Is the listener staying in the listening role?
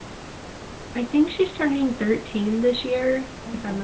Yes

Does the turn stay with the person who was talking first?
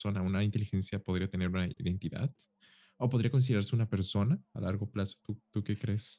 No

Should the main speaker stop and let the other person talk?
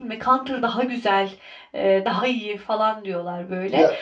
No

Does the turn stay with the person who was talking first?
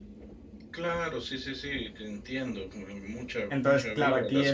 No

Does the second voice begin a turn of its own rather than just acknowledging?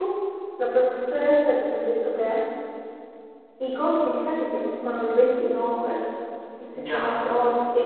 No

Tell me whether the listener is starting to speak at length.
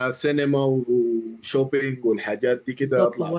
Yes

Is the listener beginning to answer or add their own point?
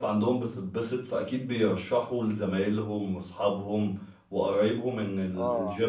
No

